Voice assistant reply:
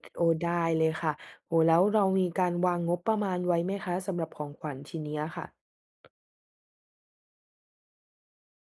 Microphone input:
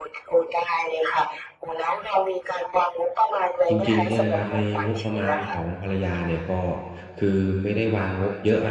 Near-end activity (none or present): present